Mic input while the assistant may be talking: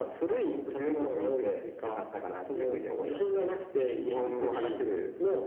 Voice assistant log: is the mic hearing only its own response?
Yes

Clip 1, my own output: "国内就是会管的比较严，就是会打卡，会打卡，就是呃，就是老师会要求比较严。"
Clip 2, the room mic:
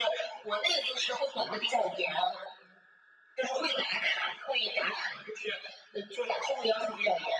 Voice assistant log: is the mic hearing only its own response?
Yes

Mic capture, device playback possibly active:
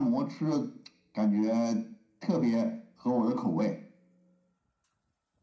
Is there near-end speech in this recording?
No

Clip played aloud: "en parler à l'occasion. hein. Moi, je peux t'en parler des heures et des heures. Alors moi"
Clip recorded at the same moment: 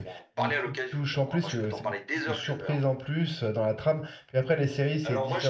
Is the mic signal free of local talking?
No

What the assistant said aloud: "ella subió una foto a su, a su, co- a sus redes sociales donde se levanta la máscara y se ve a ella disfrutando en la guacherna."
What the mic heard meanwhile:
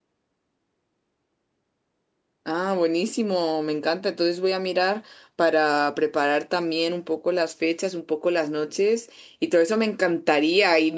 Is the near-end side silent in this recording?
No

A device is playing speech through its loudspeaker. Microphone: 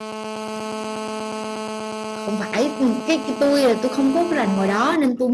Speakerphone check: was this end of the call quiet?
No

